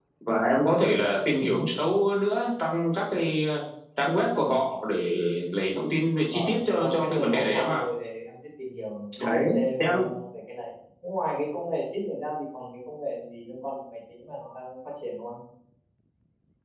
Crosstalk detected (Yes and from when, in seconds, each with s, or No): Yes, from 6.2 s